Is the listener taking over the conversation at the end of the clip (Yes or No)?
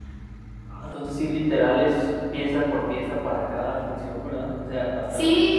Yes